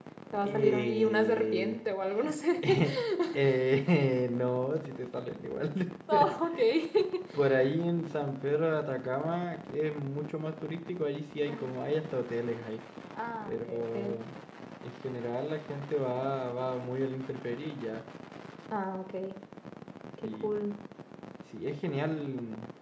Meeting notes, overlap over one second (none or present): present